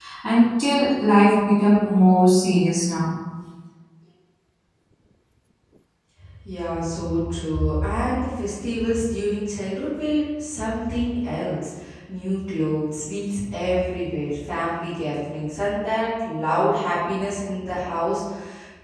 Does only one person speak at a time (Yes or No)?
Yes